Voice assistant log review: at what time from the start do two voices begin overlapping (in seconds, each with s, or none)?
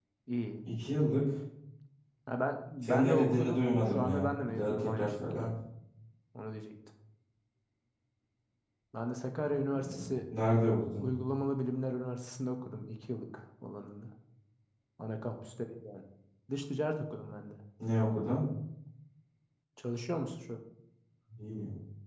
2.8 s